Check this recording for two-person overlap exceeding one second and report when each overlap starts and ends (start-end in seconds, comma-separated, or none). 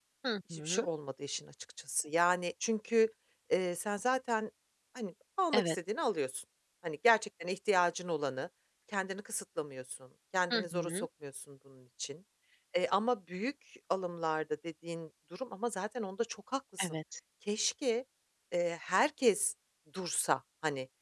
none